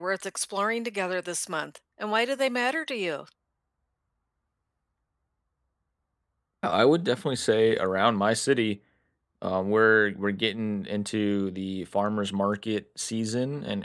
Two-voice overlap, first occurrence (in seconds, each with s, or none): none